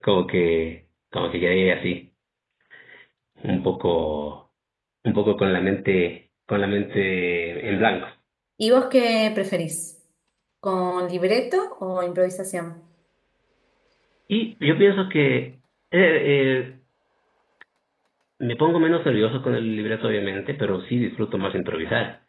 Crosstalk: none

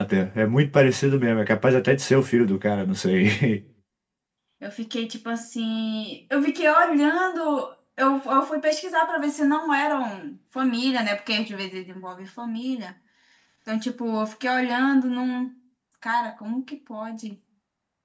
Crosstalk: none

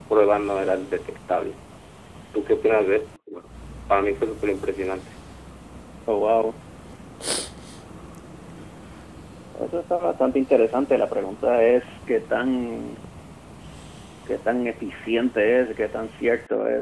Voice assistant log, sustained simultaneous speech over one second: none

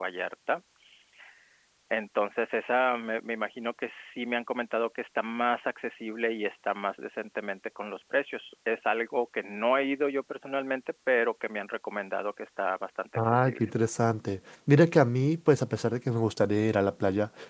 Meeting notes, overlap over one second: none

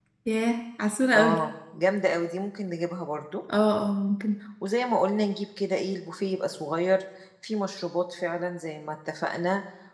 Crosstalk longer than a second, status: none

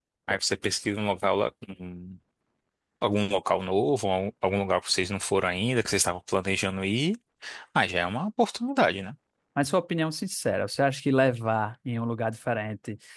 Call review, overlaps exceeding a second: none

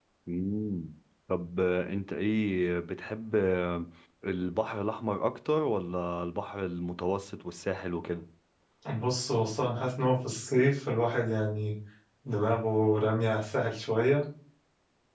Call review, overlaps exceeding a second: none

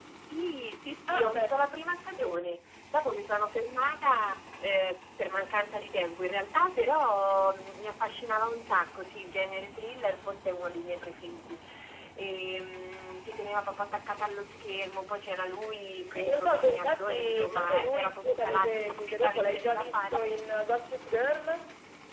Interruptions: present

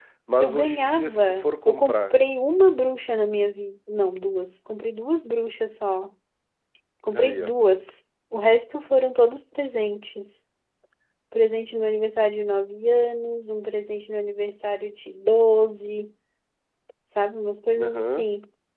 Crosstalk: present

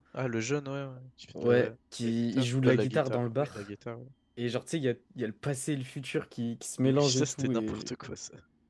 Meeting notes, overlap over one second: present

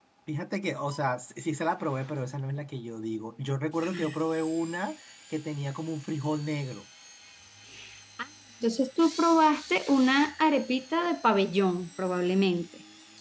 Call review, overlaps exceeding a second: none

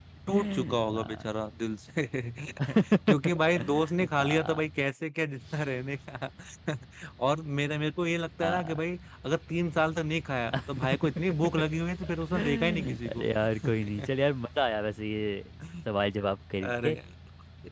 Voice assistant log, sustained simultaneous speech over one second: present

